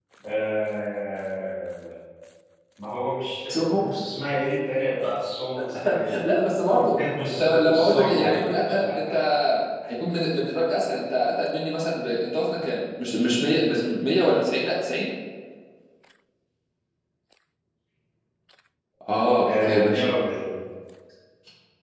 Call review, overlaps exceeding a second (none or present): present